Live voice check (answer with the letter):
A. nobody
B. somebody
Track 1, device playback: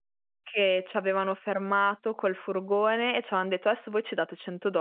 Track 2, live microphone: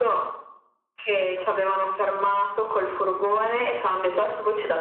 A